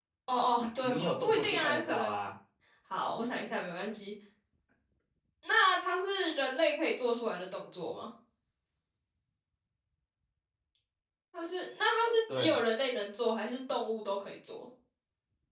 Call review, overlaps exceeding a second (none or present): present